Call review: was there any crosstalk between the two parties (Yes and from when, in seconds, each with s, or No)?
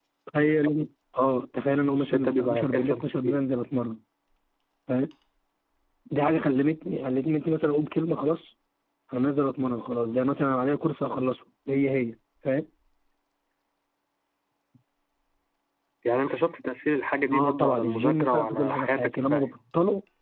Yes, from 1.9 s